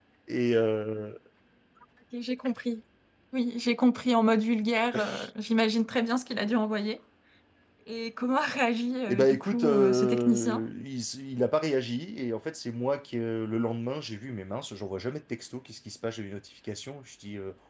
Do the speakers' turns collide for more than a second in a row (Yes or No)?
Yes